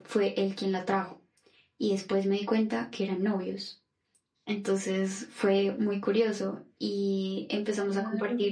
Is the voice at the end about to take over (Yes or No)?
No